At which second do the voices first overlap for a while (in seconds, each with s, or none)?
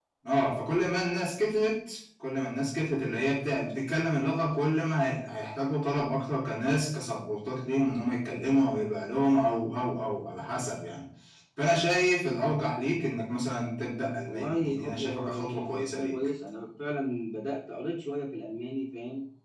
14.2 s